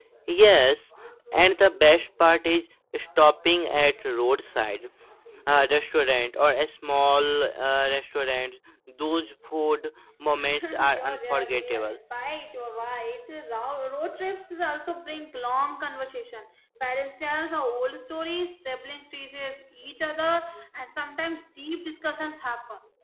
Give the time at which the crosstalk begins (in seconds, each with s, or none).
10.4 s